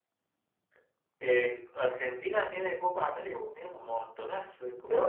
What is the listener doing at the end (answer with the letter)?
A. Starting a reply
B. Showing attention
A